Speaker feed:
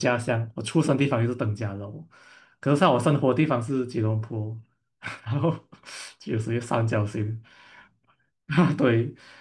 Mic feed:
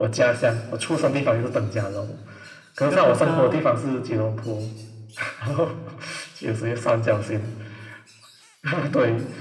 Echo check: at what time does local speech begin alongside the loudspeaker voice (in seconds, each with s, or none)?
2.8 s